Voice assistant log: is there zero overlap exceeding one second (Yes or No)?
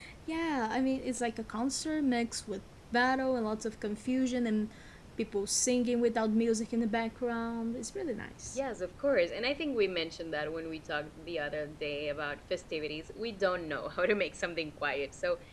Yes